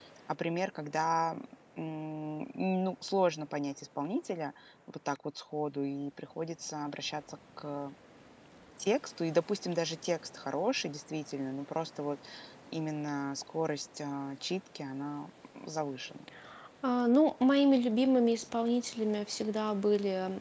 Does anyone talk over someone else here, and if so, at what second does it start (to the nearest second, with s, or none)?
none